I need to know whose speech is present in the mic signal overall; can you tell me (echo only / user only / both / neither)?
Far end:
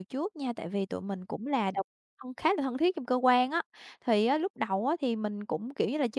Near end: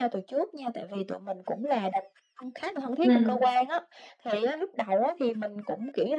both